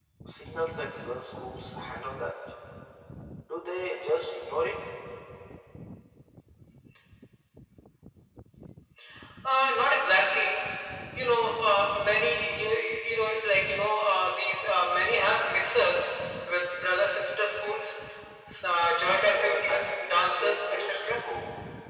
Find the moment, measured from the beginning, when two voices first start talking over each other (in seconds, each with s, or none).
19.2 s